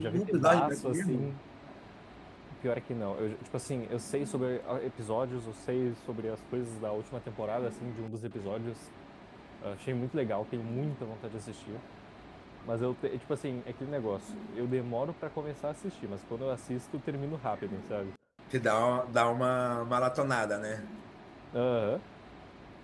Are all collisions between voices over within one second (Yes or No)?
No